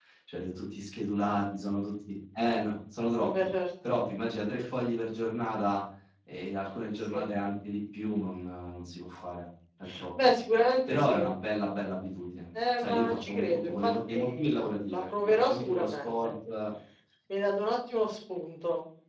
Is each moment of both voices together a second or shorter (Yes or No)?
No